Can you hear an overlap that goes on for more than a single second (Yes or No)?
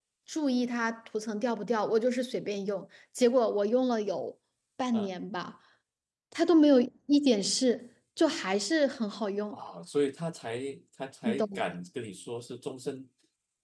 No